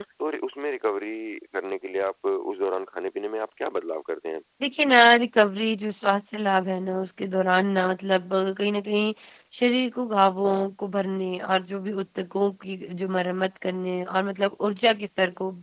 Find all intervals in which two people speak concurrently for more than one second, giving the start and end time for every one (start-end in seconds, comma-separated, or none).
none